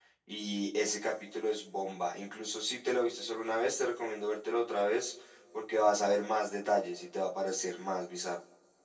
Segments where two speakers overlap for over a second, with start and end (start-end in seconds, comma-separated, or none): none